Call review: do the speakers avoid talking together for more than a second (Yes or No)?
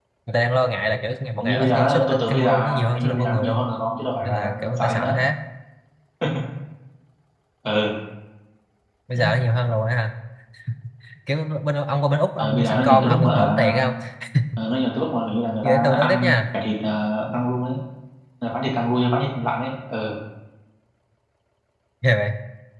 No